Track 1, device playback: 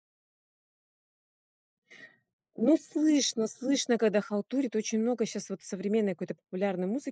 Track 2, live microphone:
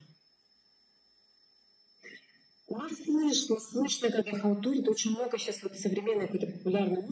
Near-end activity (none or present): none